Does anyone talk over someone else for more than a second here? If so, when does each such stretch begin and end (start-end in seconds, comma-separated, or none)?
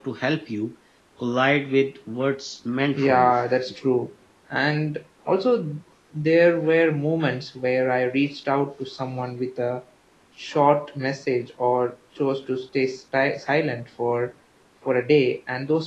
none